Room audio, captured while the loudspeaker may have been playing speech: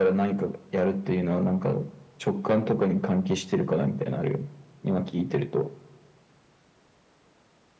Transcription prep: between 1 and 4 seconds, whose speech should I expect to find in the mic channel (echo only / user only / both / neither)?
echo only